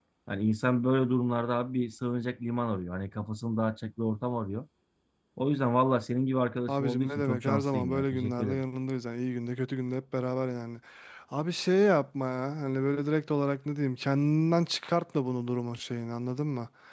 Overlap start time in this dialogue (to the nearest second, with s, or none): 7 s